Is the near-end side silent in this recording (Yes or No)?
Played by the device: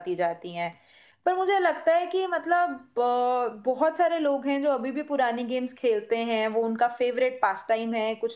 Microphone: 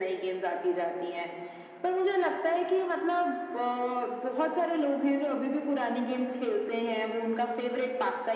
Yes